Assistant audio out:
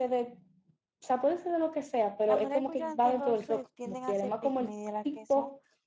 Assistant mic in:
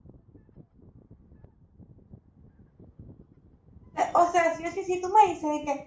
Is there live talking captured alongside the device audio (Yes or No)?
Yes